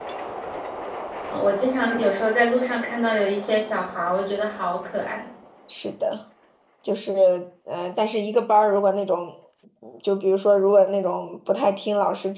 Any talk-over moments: No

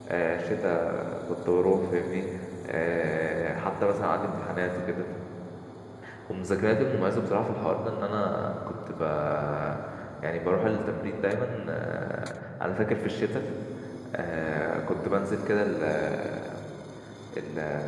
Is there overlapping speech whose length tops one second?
No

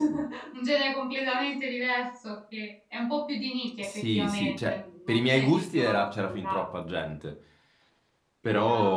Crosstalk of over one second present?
Yes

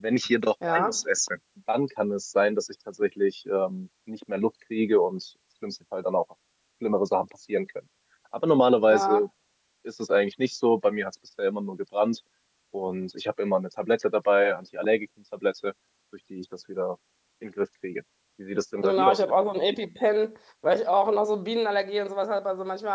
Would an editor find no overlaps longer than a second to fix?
Yes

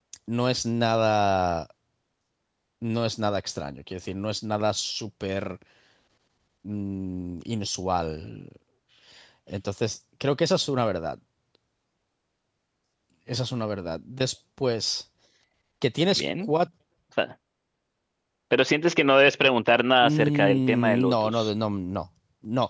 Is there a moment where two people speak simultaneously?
Yes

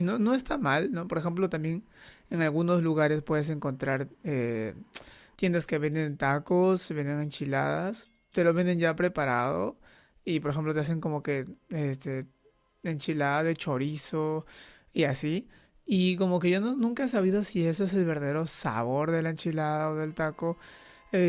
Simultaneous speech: No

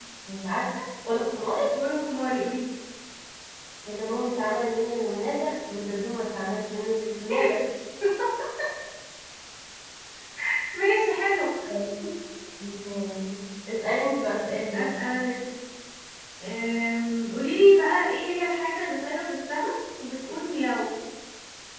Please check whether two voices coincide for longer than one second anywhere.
No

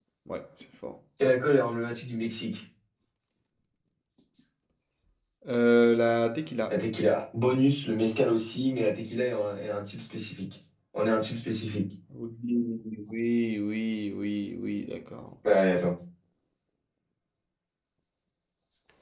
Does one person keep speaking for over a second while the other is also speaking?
No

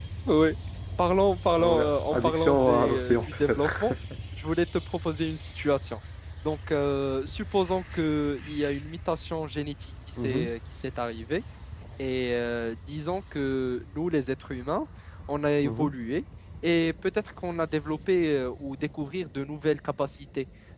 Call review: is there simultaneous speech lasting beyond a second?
Yes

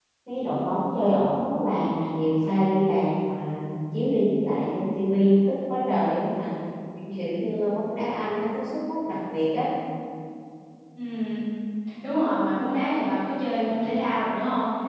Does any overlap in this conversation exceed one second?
No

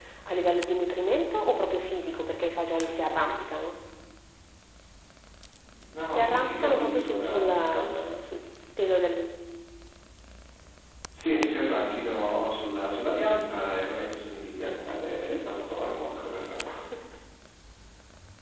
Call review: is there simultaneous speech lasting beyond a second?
Yes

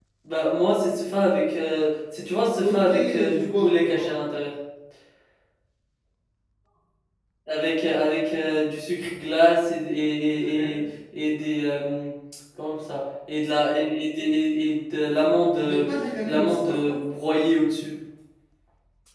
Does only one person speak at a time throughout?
No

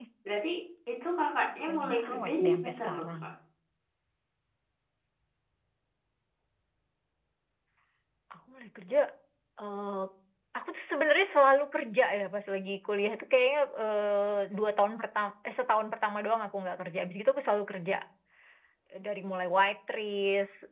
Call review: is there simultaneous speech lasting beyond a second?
Yes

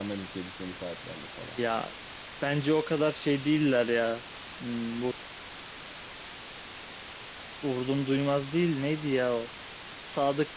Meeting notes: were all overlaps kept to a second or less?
Yes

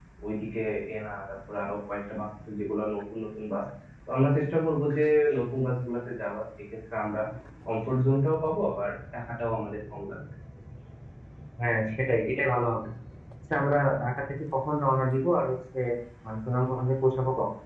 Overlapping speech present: No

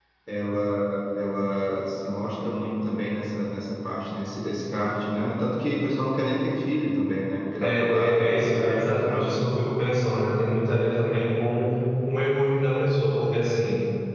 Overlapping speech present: Yes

